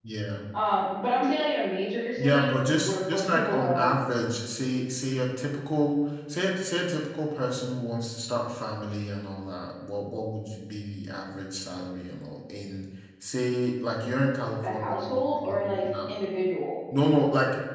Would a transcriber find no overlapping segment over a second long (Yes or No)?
No